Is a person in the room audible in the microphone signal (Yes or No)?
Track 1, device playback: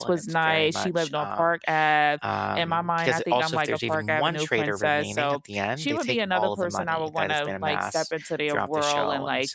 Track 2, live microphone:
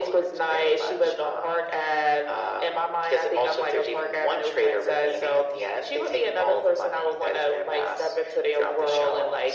No